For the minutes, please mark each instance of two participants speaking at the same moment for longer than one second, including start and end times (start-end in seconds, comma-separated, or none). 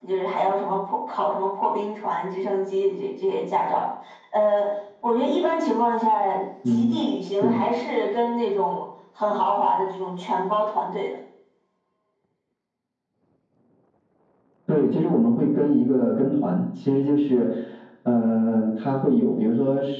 none